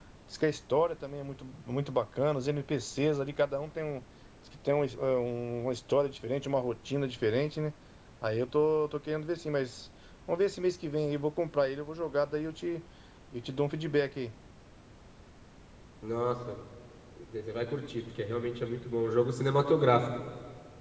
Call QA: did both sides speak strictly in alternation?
Yes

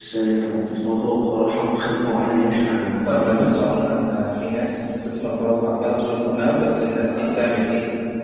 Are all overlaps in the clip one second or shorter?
Yes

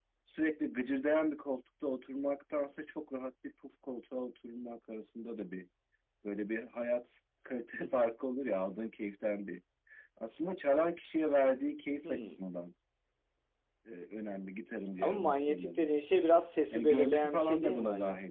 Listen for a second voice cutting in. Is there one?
Yes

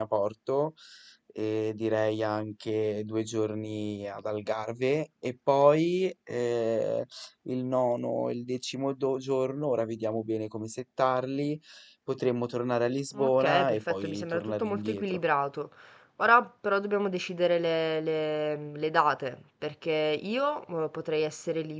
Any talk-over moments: Yes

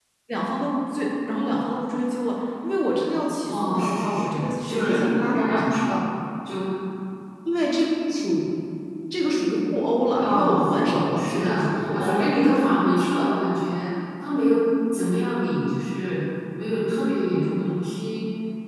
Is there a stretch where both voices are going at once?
Yes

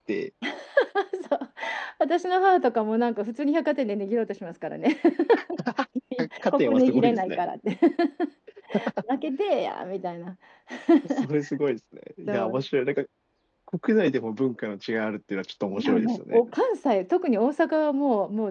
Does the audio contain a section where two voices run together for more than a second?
Yes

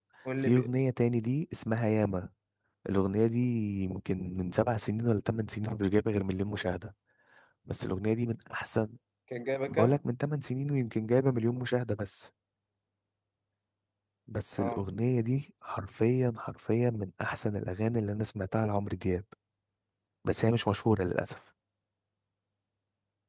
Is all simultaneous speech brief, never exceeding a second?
Yes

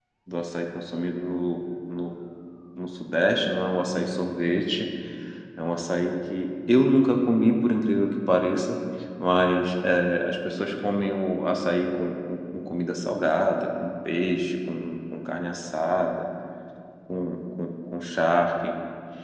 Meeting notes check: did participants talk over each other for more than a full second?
No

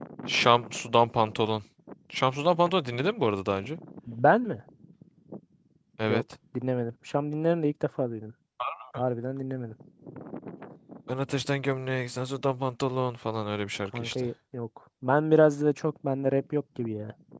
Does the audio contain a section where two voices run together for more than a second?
No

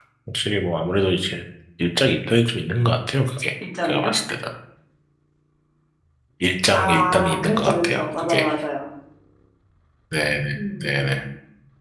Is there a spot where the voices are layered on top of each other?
Yes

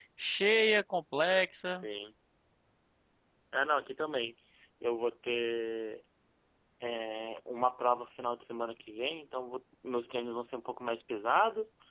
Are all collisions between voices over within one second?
Yes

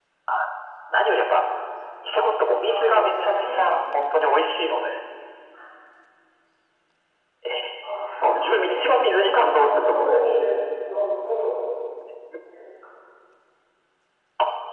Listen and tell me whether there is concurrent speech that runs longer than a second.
Yes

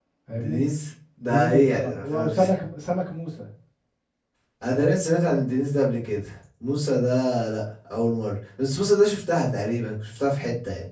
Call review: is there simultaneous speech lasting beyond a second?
Yes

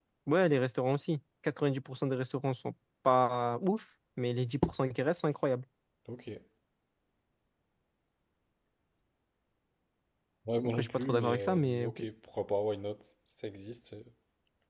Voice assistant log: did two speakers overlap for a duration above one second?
Yes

